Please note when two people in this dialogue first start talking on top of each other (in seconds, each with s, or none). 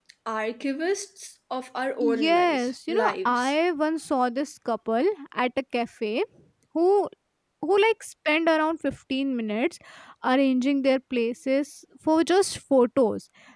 2.0 s